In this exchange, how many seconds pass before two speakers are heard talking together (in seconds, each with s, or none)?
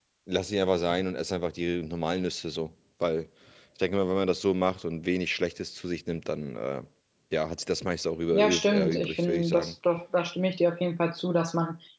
8.3 s